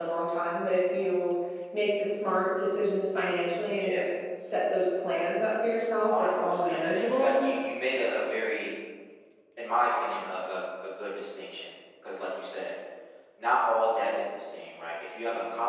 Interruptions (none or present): present